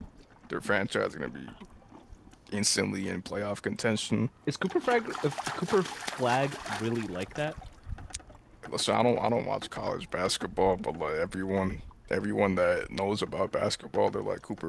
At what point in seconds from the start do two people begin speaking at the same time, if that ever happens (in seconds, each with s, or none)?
none